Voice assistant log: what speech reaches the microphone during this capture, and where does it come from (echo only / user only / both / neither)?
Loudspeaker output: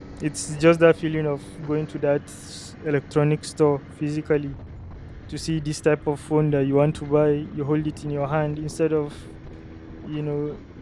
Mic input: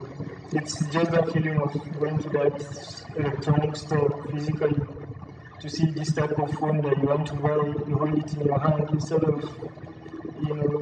echo only